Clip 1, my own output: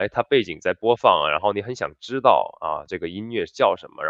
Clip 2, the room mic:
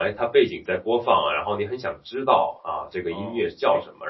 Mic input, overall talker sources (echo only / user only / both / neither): both